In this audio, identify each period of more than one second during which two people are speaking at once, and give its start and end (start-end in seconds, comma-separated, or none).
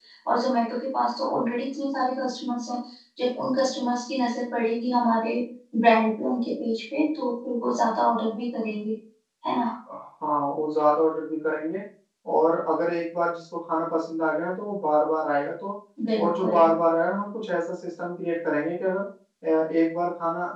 none